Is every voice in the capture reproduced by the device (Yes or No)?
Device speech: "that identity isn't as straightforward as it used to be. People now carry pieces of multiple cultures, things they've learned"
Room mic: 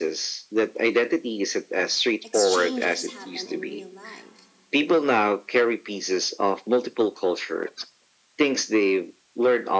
No